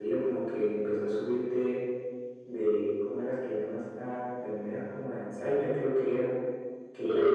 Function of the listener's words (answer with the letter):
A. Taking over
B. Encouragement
A